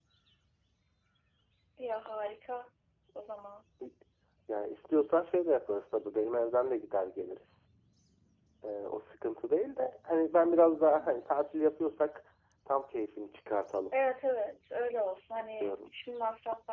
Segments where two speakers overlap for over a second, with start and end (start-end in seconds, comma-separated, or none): none